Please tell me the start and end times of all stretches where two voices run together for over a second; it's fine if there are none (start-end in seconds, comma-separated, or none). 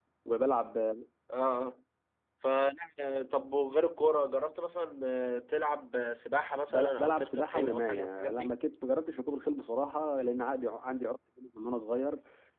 6.7-8.6